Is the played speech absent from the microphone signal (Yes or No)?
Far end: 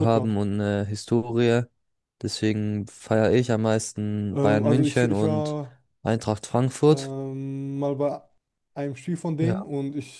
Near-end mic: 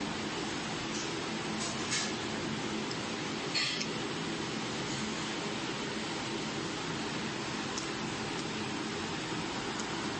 Yes